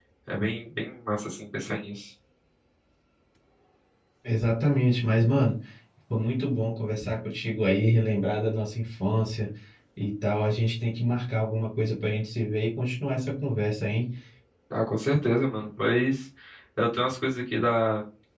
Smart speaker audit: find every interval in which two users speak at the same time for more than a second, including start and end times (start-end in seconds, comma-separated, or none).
none